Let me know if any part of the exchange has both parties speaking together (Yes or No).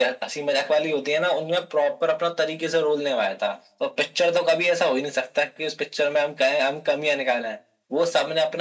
No